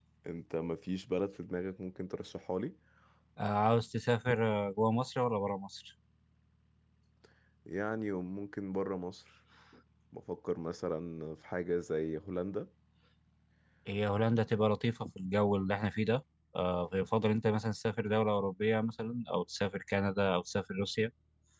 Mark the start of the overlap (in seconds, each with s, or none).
none